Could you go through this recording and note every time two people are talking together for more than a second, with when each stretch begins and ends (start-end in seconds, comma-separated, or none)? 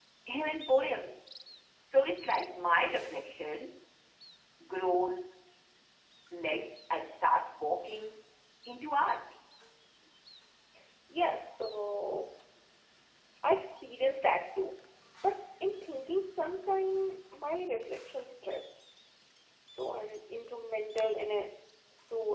none